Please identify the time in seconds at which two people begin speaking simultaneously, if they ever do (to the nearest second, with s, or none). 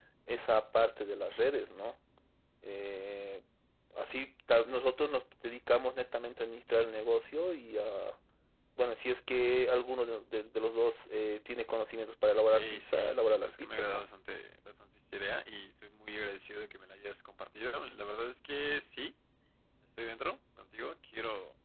13 s